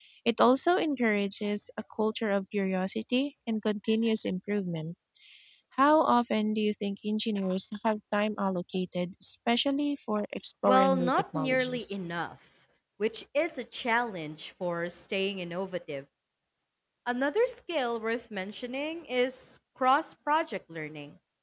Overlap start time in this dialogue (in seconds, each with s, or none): 10.7 s